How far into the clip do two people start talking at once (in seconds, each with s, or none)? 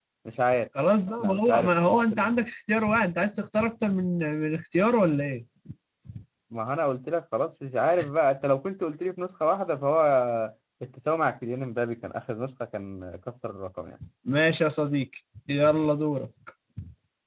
1.2 s